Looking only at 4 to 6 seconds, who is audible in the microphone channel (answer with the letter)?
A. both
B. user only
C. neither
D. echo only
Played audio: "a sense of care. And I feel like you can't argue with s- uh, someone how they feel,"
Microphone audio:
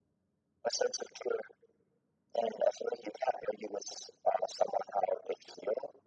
D